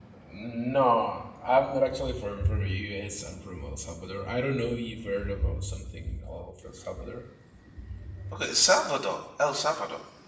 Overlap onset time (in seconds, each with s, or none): none